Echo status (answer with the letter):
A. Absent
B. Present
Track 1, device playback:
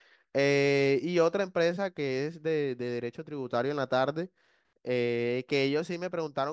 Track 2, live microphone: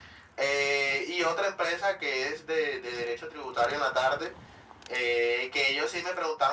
B